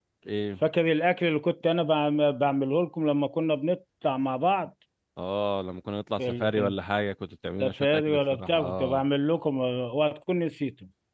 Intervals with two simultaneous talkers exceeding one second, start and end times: 7.6-9.1

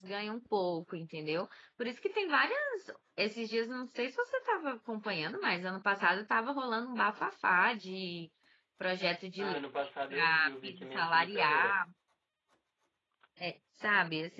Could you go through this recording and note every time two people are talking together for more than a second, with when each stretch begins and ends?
10.1-11.8

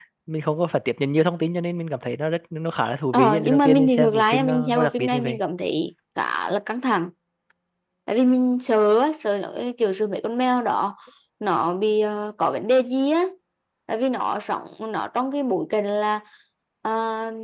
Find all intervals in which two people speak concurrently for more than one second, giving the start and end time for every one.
3.1-5.4

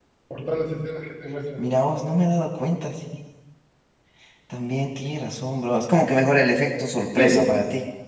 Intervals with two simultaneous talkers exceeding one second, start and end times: none

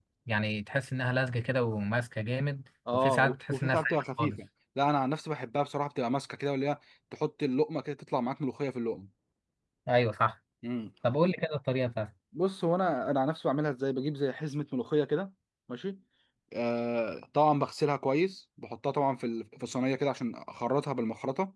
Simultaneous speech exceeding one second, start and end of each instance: 2.9-4.4

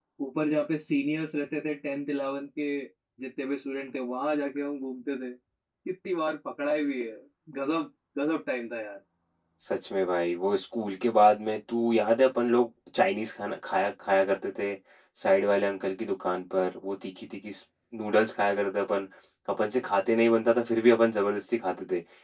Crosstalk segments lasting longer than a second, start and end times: none

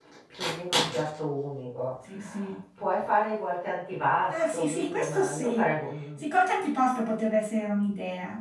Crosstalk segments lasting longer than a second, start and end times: 4.3-5.7

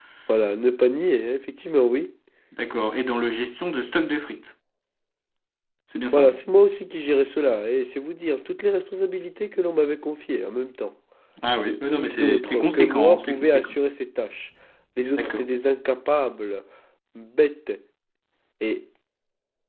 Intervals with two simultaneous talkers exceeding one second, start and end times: 11.9-13.7

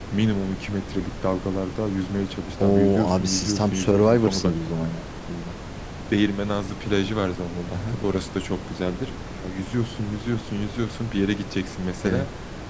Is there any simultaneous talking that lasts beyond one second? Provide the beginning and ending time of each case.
2.6-4.7

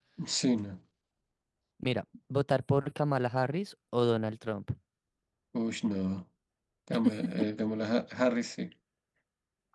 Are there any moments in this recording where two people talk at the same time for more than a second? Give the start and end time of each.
none

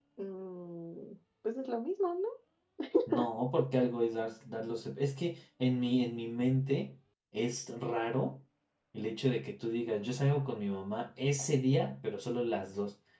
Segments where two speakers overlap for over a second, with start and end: none

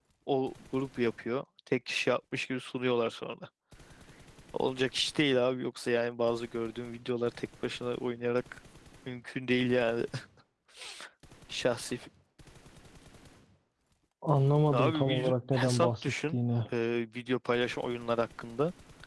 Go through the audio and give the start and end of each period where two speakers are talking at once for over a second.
14.7-16.4

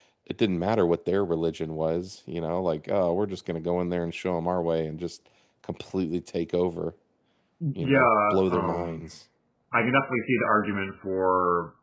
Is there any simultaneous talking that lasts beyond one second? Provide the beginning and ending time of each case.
7.8-9.0

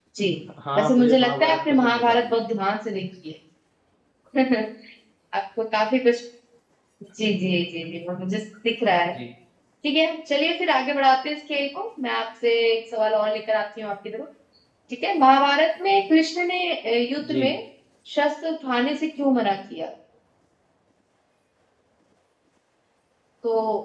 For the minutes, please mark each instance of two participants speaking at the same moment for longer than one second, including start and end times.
0.8-2.3

